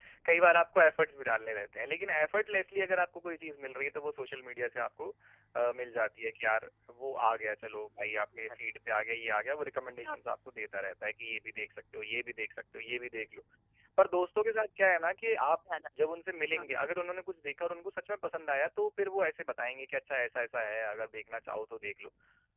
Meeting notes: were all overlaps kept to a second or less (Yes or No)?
Yes